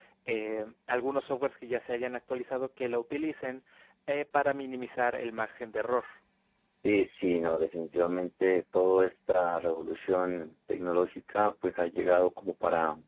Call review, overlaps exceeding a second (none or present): none